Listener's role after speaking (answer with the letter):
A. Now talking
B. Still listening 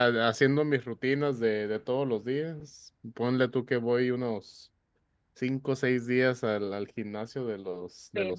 A